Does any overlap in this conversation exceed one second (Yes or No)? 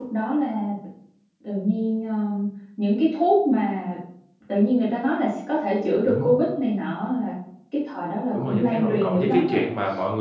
Yes